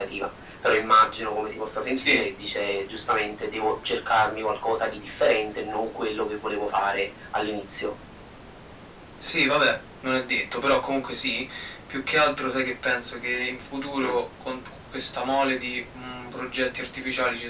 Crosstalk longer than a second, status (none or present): none